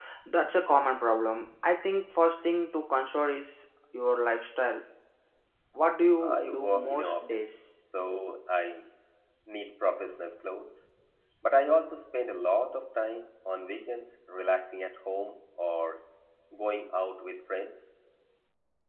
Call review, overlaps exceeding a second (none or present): present